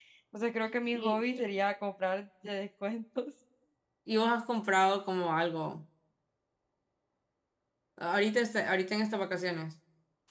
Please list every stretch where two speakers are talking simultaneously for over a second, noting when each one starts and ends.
none

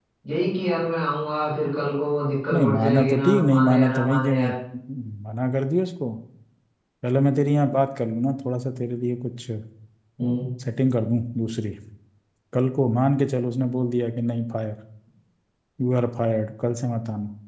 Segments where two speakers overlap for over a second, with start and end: 2.5-4.5

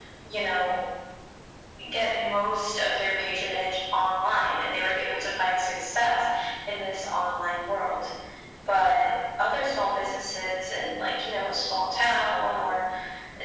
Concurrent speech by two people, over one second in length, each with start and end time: none

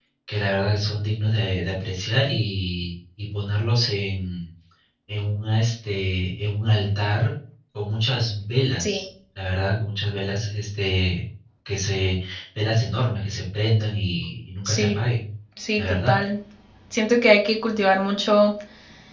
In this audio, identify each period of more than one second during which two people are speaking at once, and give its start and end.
none

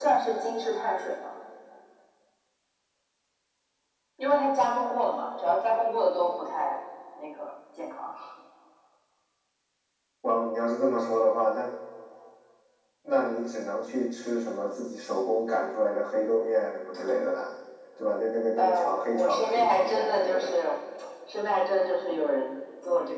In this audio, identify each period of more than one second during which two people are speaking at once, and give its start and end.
18.6-20.6

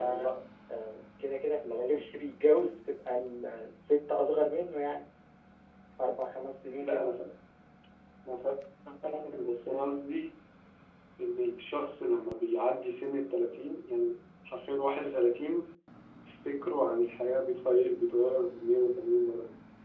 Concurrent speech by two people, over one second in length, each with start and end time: none

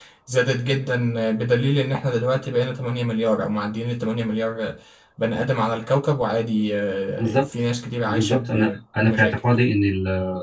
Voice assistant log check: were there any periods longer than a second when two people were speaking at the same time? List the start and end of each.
8.1-9.4

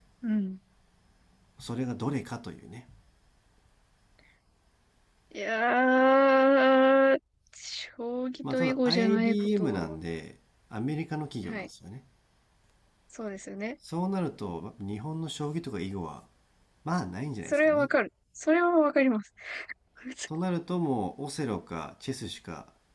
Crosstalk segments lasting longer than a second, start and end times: 8.5-10.0

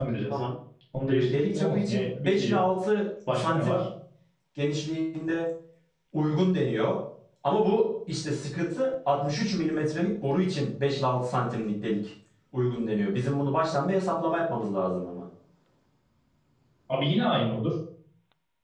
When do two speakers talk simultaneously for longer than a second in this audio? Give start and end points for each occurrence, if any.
1.1-2.6

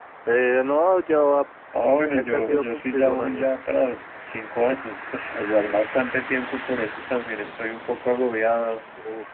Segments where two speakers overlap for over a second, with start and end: 2.1-3.5

